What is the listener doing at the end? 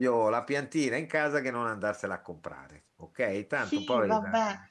taking over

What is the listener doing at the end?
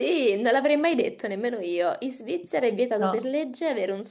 listening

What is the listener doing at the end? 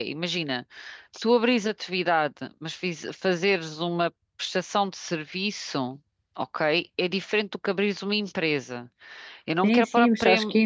taking over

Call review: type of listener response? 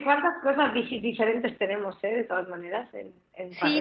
taking over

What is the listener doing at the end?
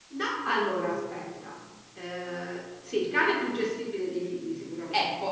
listening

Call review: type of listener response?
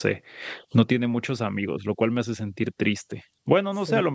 listening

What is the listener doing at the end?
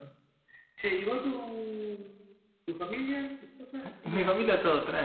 taking over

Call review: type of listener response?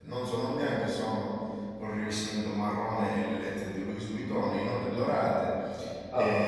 listening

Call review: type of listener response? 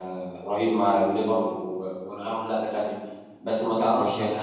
listening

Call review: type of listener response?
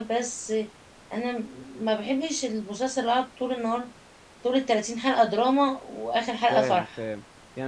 taking over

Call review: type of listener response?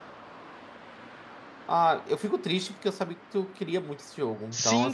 taking over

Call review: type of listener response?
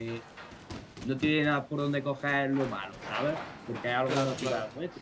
listening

